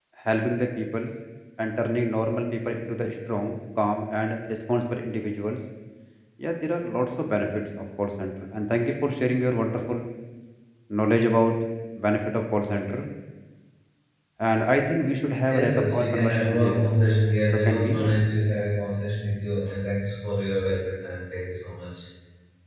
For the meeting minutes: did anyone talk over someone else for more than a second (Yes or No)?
Yes